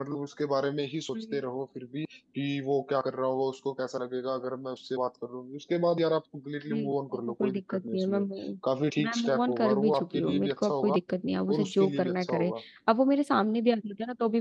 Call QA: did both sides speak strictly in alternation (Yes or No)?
No